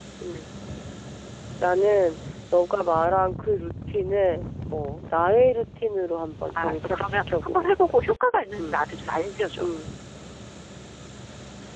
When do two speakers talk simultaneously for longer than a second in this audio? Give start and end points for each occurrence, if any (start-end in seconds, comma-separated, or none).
6.5-7.9